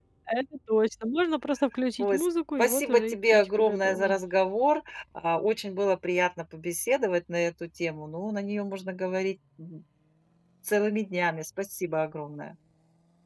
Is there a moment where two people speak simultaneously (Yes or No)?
Yes